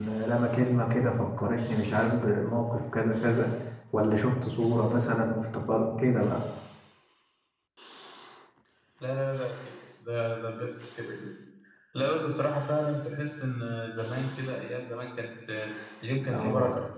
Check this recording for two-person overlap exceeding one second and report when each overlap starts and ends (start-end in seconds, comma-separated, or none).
none